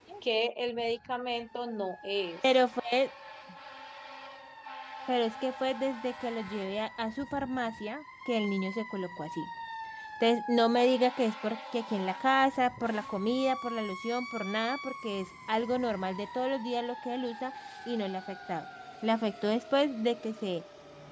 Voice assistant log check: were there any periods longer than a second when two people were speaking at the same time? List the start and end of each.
none

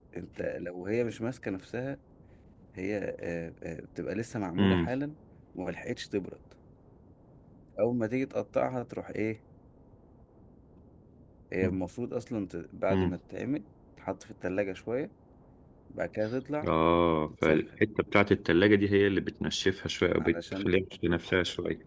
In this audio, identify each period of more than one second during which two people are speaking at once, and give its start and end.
none

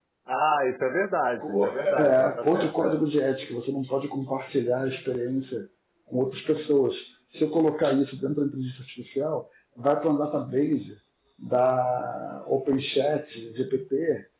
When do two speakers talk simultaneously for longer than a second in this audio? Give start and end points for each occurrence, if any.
1.4-3.0

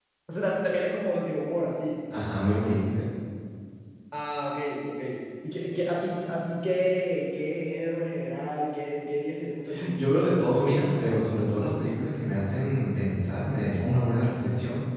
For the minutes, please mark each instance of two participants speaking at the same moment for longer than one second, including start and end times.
none

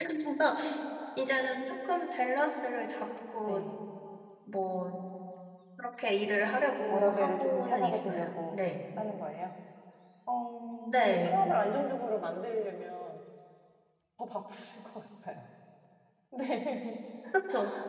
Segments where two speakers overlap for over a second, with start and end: 6.9-8.6

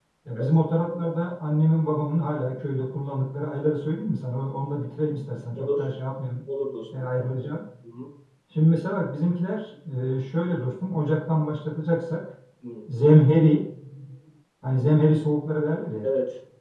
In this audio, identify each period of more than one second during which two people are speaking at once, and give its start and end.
none

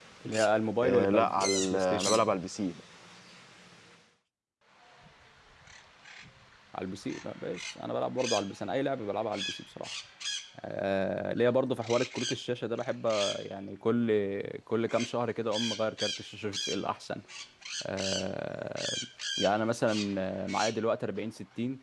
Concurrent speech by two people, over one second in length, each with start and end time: 0.8-2.2

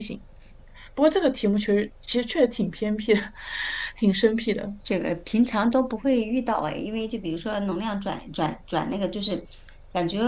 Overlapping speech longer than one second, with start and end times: none

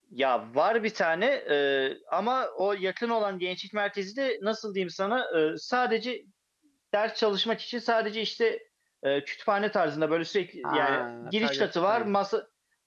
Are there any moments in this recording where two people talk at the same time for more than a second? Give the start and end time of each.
10.6-12.1

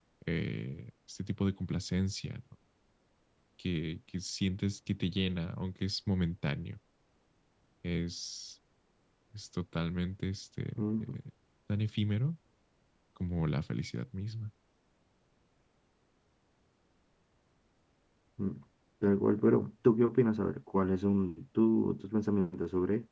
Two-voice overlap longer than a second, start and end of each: none

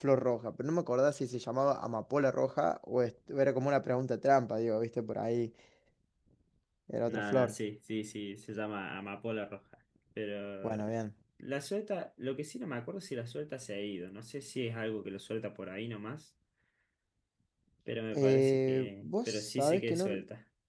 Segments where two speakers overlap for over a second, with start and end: 18.1-20.1

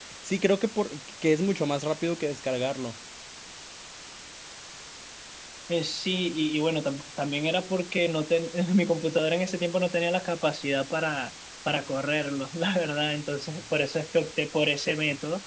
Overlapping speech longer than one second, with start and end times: none

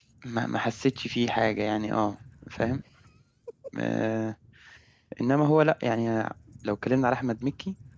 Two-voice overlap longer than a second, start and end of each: none

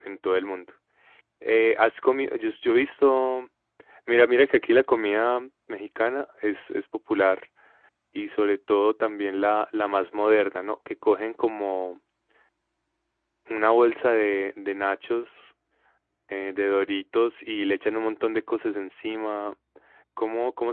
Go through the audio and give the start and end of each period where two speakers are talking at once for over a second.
none

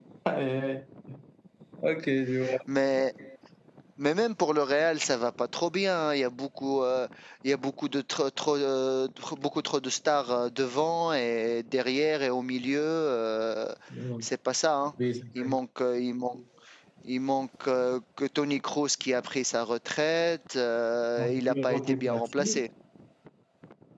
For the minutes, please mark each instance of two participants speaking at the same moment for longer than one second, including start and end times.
21.2-22.6

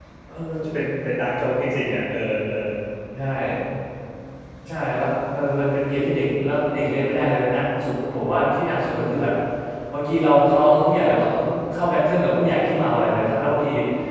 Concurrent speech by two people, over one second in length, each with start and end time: none

